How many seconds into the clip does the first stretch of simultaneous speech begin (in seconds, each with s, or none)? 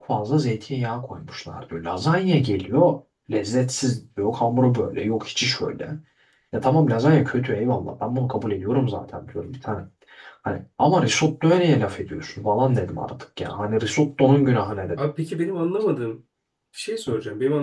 none